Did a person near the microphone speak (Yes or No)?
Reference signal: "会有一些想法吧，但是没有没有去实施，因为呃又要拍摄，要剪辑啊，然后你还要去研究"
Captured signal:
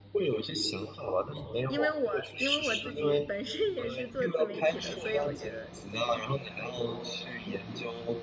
Yes